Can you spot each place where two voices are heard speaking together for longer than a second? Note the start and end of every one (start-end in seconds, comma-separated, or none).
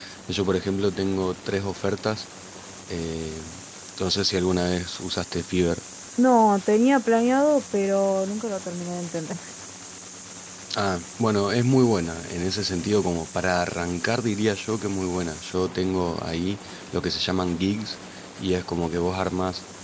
none